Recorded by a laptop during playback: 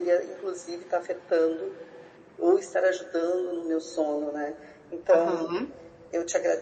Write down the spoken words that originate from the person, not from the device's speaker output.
Aham.

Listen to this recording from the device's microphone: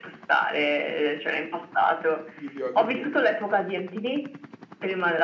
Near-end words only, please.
Video a go go.

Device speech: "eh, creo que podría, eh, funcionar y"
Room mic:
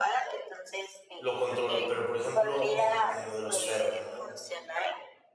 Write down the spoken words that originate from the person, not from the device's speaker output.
lo controlo. Pero, por ejemplo, en en lo de los perros, ¿no?

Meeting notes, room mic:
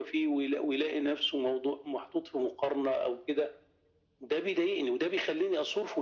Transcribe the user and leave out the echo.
none

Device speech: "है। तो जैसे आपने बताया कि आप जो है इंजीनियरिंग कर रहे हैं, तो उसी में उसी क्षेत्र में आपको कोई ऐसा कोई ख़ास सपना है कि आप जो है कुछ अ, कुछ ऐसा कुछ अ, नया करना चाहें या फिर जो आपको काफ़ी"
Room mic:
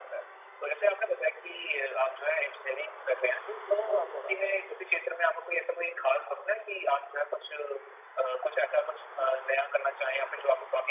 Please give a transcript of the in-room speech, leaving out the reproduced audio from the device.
बिल्कुल, थोड़ा, थोड़ा।

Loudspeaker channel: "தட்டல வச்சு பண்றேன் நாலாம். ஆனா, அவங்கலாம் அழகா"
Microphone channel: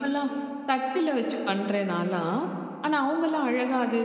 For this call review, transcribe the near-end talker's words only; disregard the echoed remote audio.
none

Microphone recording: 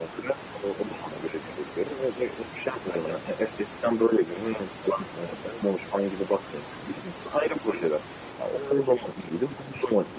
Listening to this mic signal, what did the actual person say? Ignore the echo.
none

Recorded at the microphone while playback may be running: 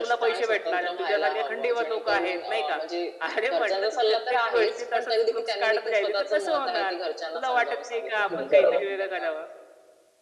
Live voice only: हं. बरोबर.

